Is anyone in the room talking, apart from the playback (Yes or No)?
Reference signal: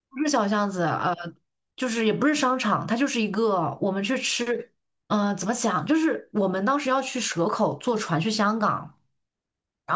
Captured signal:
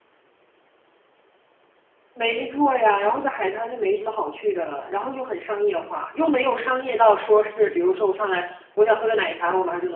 Yes